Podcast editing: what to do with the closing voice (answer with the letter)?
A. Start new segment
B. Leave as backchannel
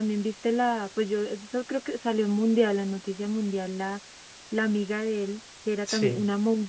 B